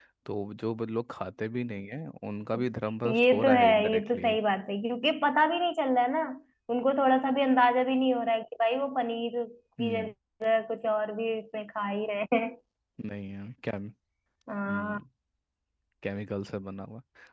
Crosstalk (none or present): present